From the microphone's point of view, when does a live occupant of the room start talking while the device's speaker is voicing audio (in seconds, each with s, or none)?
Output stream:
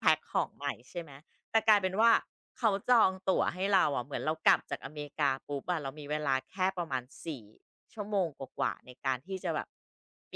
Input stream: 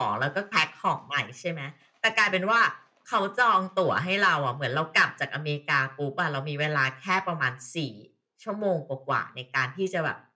none